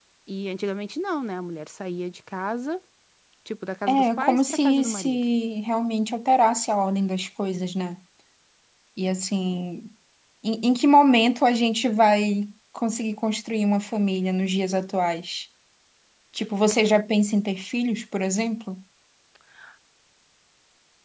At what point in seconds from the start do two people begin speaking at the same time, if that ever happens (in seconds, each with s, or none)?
3.9 s